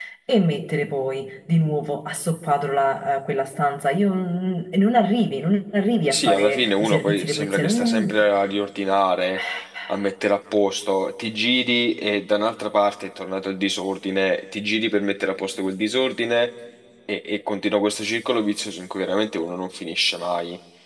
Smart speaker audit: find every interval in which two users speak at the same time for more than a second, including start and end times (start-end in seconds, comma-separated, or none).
6.1-8.1